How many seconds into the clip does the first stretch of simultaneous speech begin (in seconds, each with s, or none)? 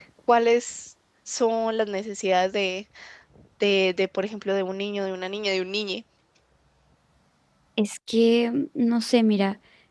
none